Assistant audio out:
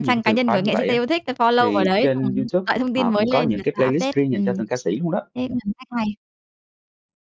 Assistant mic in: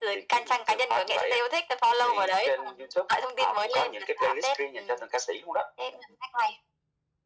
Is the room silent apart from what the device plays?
Yes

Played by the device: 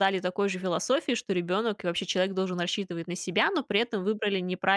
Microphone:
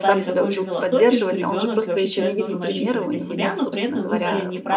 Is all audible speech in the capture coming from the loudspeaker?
No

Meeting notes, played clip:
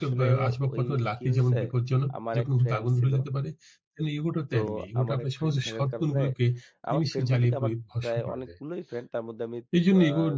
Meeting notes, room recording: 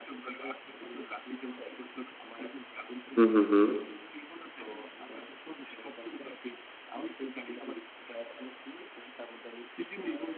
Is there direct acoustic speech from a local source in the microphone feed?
Yes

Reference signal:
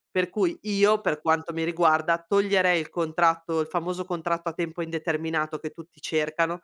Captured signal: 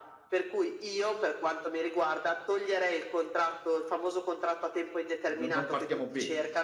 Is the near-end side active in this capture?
Yes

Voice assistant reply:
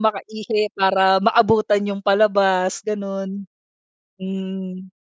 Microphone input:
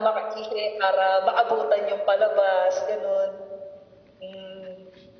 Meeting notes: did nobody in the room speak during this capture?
Yes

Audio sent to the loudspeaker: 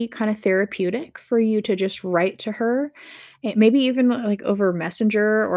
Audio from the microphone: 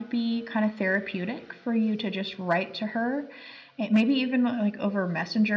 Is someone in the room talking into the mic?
No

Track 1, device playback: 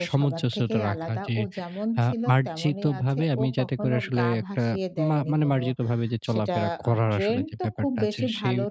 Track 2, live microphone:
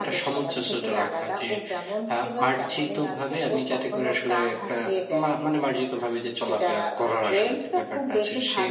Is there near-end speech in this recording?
No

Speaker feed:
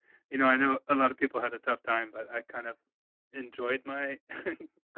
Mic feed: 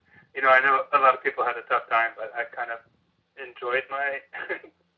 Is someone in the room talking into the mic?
No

